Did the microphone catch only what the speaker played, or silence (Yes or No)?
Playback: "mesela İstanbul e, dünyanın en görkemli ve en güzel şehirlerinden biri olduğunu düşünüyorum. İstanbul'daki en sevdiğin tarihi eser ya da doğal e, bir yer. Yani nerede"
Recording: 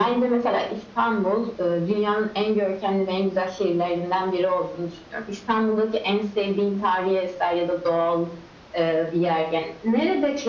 Yes